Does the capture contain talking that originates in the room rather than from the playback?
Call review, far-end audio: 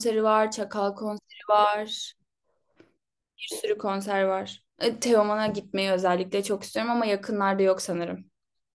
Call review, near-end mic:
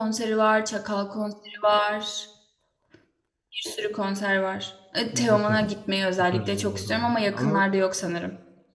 Yes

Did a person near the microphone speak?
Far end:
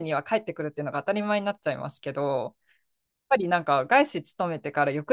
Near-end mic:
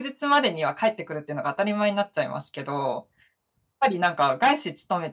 No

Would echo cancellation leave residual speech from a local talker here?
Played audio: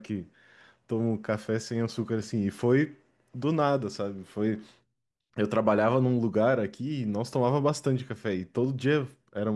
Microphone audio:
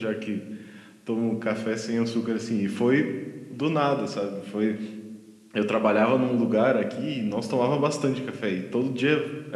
No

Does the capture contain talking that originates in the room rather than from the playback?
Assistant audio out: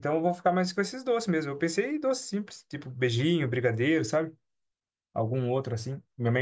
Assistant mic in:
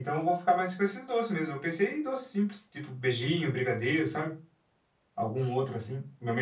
No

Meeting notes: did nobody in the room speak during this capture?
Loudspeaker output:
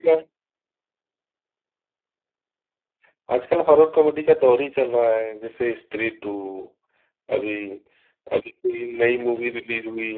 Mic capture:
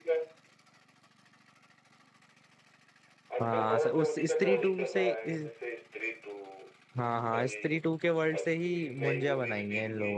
No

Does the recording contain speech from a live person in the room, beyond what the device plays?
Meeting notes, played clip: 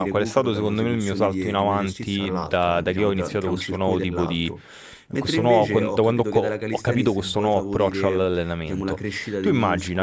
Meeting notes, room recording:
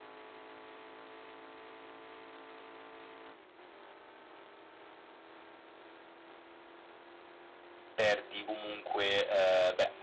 Yes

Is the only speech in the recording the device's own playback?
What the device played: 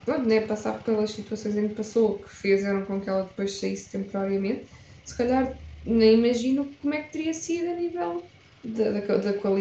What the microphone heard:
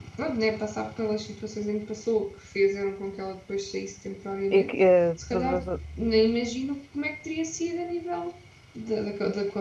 No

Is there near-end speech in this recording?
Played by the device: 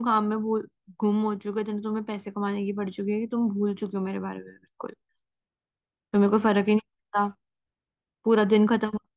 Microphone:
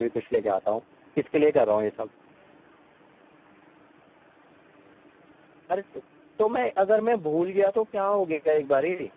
Yes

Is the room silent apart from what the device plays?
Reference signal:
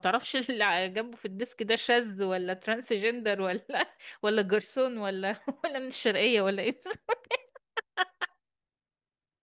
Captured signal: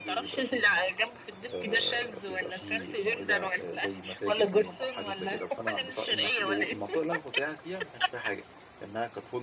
No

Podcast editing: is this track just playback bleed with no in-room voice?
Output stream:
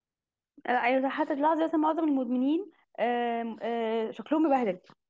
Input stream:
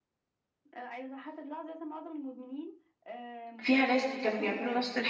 No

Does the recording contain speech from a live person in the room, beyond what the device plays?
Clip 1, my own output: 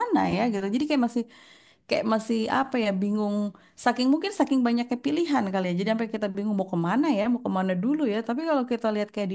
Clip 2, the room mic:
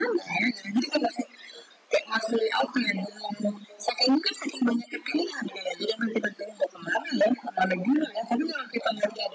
No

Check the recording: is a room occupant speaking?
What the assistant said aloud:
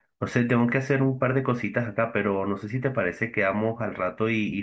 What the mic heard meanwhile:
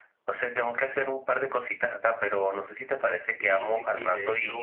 Yes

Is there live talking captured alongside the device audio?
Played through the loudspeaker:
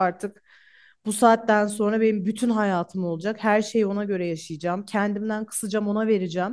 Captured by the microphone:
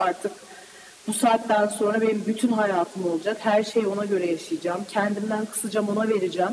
No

